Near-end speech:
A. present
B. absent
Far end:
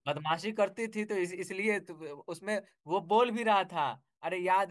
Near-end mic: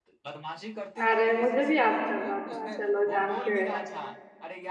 A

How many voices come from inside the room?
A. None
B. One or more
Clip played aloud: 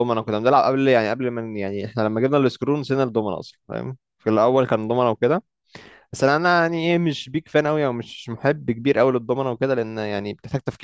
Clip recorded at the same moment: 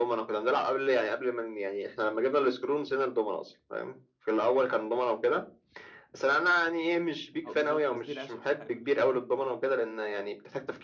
B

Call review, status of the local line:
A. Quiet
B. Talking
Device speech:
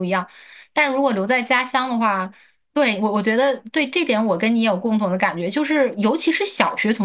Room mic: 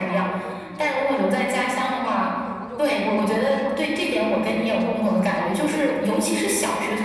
B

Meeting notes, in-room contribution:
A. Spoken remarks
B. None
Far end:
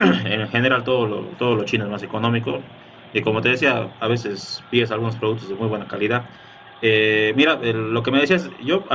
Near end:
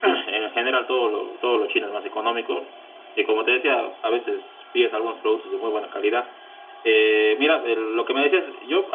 B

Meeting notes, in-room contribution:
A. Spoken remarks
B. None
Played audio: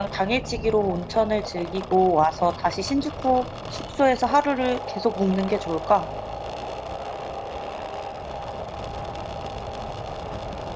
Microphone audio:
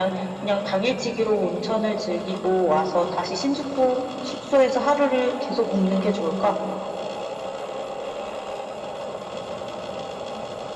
B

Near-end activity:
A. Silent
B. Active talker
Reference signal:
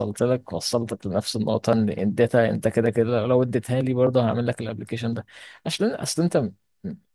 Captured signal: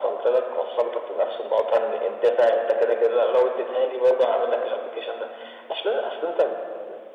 A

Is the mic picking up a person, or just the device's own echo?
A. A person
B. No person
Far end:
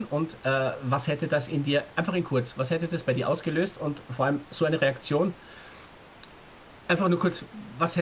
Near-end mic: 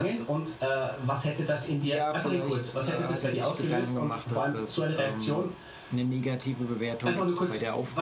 A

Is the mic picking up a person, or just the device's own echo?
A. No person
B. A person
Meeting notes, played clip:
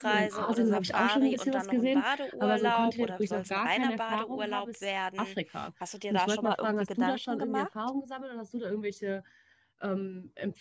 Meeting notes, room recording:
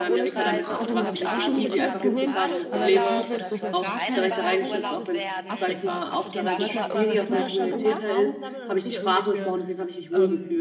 B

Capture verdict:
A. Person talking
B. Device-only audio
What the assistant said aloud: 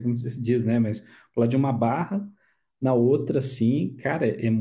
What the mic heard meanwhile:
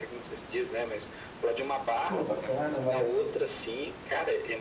A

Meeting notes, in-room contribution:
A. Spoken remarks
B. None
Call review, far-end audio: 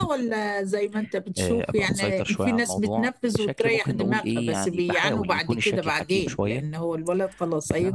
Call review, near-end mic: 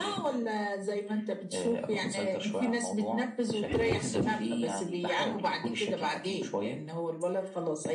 A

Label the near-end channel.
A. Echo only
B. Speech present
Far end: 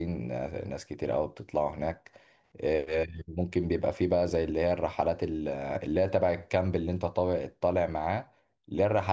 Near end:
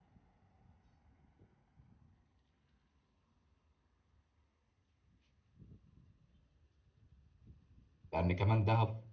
B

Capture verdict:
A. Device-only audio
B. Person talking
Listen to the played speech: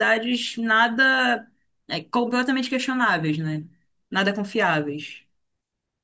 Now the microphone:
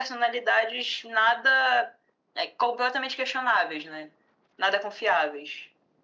A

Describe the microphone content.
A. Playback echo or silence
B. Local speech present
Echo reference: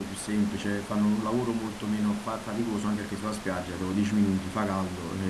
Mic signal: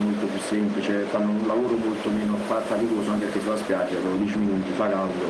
A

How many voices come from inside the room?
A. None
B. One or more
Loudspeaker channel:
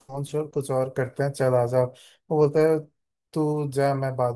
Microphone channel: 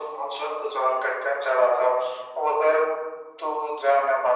A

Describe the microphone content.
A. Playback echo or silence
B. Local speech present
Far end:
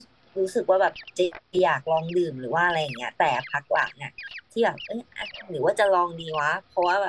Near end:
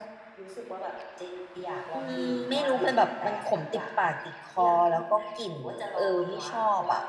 B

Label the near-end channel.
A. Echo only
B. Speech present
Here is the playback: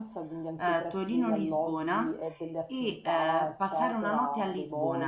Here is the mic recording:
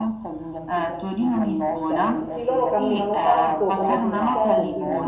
B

